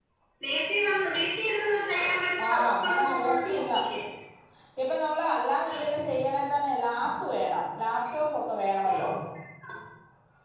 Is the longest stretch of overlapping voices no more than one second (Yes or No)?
No